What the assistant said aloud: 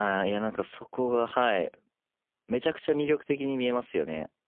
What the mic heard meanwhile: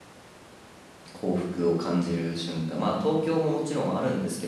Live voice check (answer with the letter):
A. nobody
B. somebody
B